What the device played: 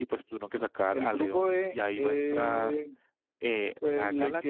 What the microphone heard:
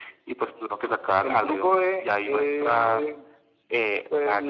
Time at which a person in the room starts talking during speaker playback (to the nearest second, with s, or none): none